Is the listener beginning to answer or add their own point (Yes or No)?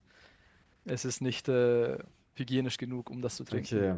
No